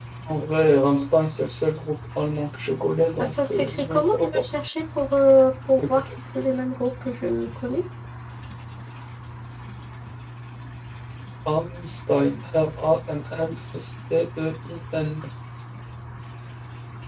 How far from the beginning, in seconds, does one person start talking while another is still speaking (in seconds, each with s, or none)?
3.2 s